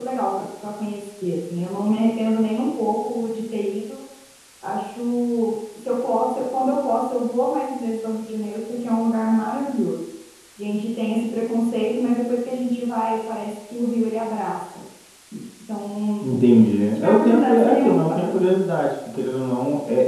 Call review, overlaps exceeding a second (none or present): present